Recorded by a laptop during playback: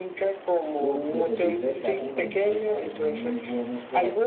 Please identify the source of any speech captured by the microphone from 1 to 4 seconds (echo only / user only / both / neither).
both